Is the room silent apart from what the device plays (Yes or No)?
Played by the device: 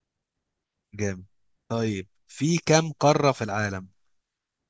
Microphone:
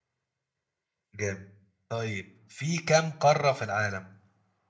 Yes